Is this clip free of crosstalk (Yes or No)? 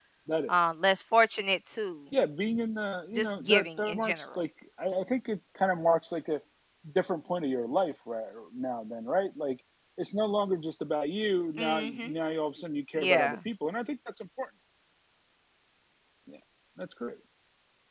No